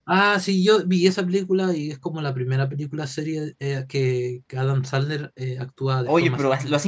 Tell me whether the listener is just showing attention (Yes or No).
No